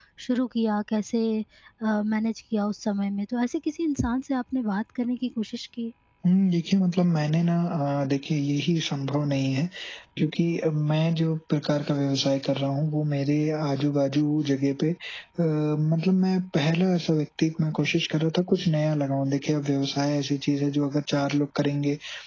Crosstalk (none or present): none